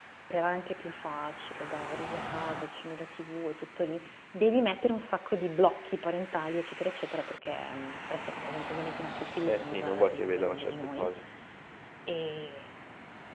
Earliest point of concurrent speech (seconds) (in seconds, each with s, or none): 9.4 s